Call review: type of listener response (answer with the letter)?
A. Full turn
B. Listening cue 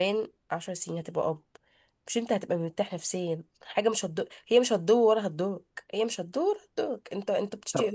B